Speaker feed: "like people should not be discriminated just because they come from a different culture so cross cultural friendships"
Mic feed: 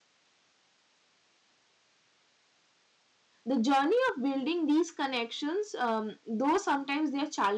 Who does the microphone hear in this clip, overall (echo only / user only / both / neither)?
user only